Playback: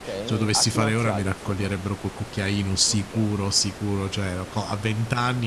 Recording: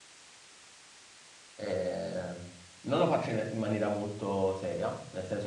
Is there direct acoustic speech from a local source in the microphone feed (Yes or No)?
Yes